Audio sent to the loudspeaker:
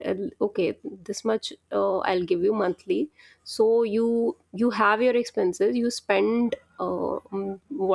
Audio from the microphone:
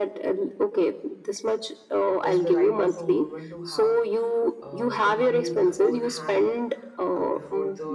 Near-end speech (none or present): present